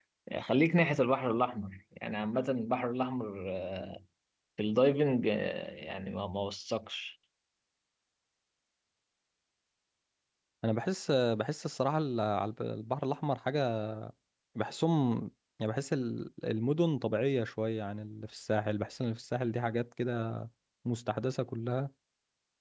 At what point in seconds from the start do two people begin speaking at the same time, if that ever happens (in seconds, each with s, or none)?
none